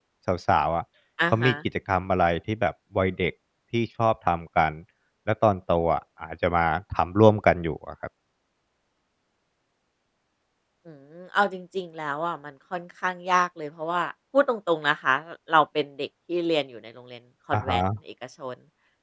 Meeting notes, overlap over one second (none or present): none